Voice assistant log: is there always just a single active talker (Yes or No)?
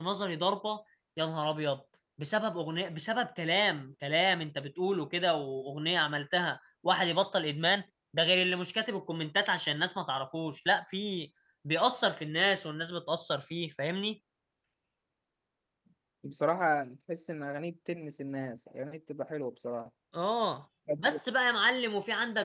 Yes